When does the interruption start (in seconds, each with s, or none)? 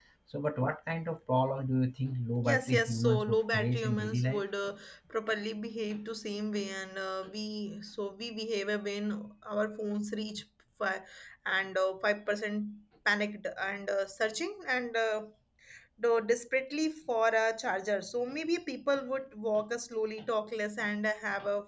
2.4 s